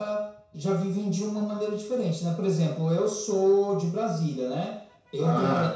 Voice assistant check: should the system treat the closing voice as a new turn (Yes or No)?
No